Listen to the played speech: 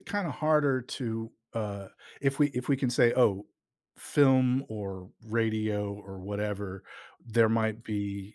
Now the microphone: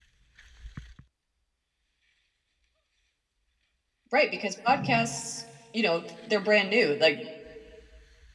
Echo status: none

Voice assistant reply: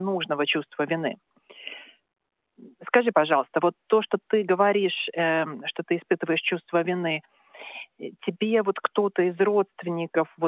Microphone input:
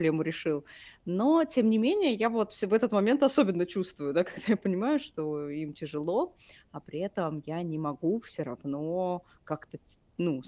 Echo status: none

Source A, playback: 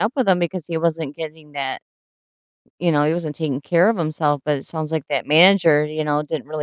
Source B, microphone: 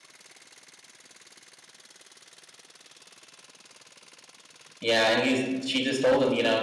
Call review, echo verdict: none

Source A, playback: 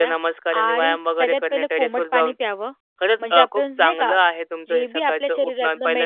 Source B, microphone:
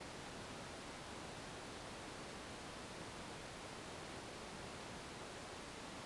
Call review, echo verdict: none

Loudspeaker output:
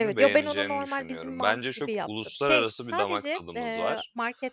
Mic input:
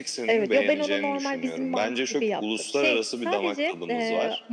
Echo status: present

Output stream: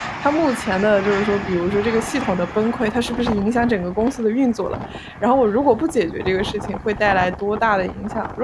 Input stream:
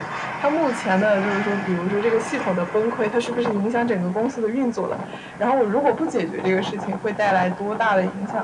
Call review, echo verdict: present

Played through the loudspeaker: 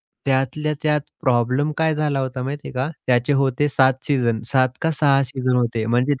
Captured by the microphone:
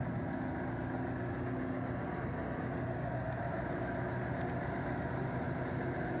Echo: none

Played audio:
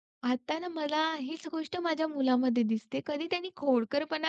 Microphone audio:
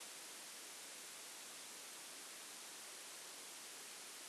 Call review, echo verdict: none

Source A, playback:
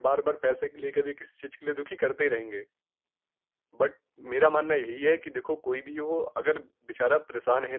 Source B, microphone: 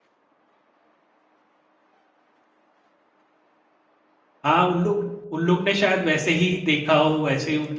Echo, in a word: none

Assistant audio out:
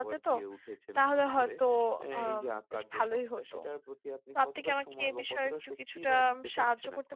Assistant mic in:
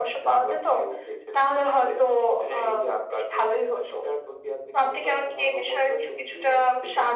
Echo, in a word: present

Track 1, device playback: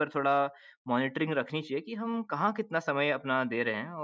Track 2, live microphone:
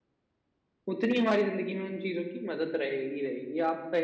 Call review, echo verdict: none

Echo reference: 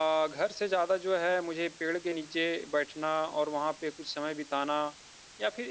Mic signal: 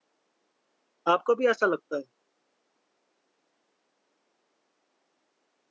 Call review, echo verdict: none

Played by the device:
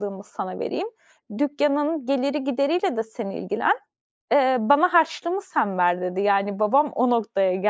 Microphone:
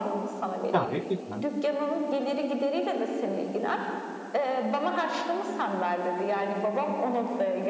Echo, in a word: present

